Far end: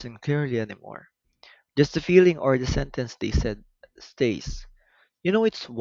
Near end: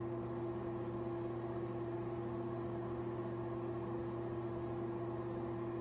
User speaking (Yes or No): No